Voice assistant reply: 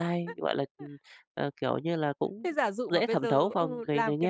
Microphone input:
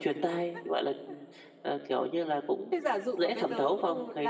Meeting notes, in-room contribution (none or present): none